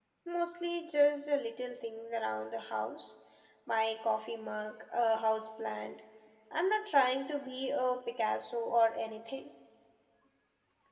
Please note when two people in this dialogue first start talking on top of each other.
none

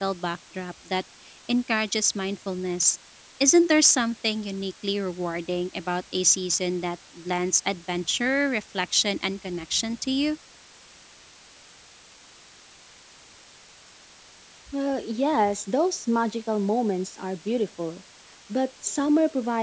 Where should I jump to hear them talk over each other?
none

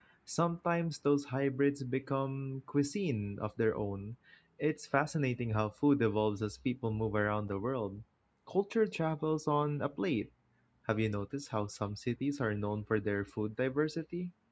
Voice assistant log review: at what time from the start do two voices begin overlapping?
none

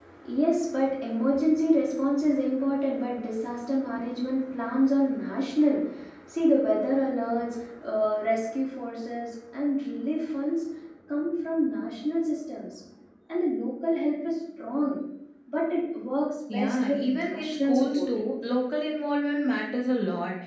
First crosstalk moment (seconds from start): 16 s

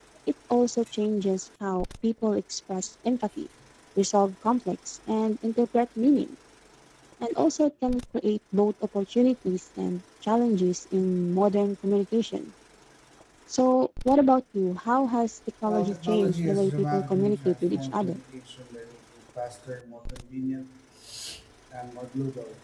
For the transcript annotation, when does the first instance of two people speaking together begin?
16 s

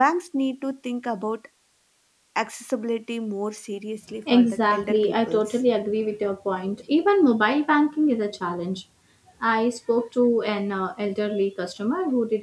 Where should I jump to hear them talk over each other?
4 s

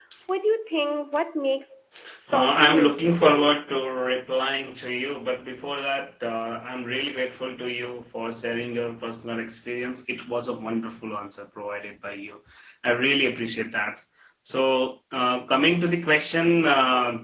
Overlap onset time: 2 s

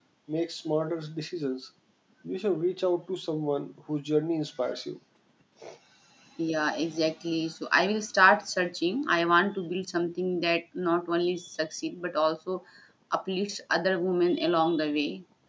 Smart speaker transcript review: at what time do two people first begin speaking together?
none

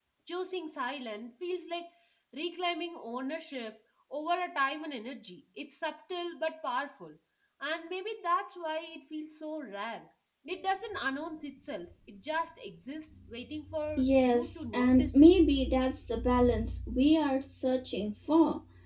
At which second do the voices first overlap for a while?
14 s

